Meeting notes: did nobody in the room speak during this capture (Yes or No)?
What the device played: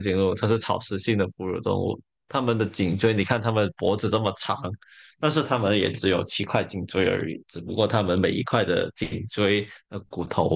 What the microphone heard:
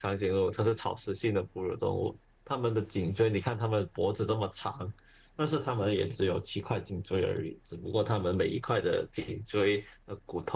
Yes